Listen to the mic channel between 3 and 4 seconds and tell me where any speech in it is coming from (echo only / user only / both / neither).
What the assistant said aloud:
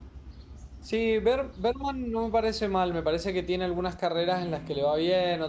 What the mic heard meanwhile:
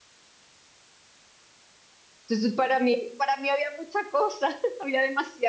user only